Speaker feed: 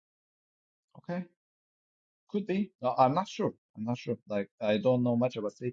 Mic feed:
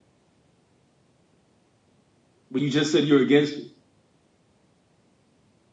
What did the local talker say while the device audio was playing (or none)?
But you just said you're against it.